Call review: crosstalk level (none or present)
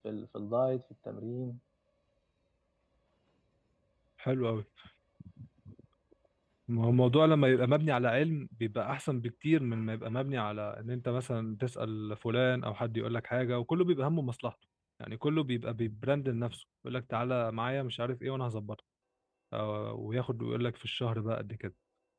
none